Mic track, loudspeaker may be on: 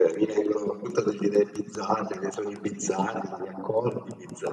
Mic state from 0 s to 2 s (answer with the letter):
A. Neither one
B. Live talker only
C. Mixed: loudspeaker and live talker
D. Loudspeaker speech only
D